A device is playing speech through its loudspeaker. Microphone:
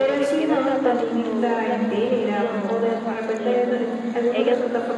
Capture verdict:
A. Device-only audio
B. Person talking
B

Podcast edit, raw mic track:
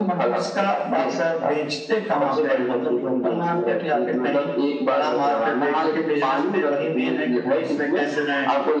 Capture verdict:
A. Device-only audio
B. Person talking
A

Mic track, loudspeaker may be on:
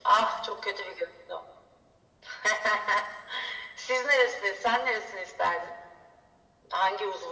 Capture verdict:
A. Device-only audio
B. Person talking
A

